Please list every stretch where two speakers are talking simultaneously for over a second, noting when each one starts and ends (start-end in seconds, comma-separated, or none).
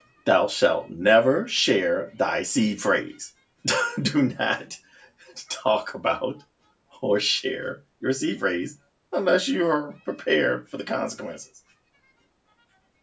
none